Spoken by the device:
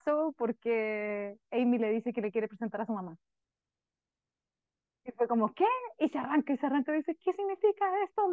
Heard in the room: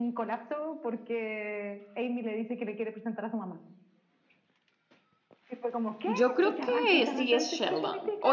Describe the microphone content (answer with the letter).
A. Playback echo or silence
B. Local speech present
B